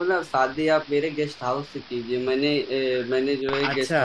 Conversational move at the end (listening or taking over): listening